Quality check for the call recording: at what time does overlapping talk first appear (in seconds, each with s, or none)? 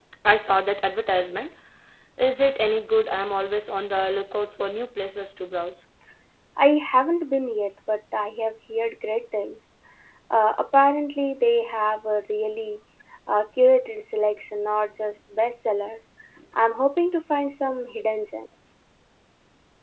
none